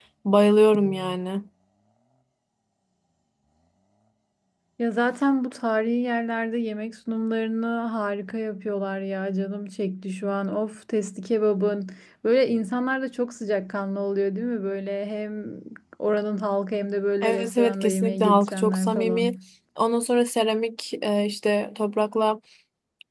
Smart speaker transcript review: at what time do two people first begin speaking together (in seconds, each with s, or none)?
17.2 s